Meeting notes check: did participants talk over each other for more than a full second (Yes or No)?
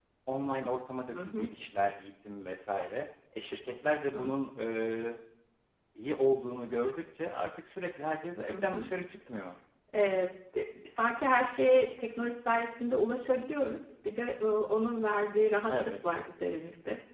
No